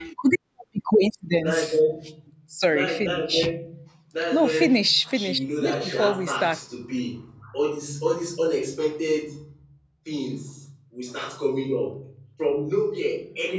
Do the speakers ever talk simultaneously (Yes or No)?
Yes